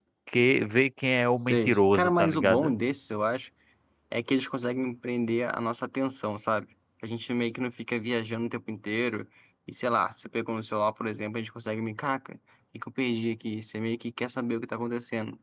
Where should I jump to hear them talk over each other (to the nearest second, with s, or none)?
1 s